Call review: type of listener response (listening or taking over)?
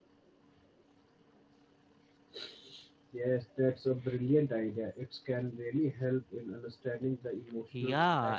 taking over